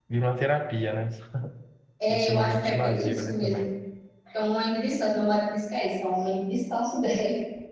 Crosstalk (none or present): present